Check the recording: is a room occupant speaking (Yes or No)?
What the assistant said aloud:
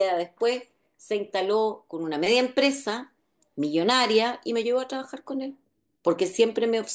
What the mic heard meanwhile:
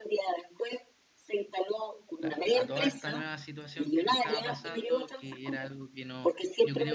Yes